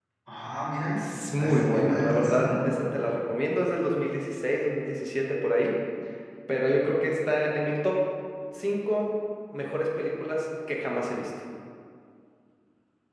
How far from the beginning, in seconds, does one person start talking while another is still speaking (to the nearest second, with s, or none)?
1 s